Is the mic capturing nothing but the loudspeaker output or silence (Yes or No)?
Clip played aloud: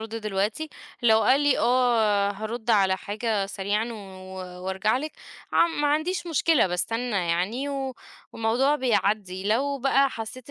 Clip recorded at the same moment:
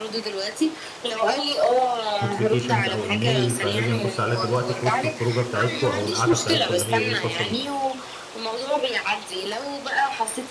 No